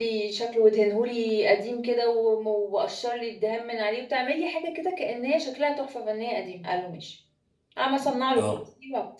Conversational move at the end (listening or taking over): listening